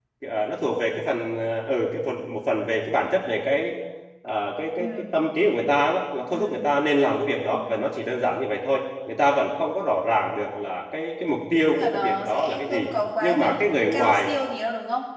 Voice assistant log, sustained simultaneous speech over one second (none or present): present